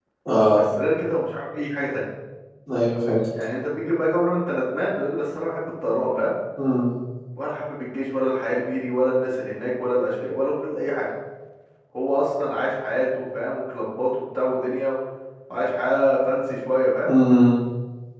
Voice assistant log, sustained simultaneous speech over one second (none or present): none